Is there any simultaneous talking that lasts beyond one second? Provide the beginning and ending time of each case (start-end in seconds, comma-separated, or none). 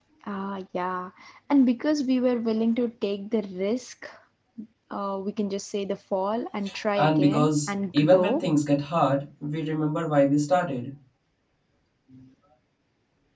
7.0-8.4